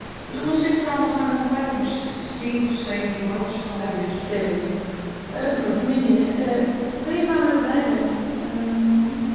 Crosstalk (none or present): present